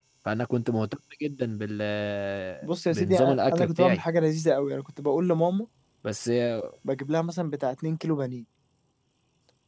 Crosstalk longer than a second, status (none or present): present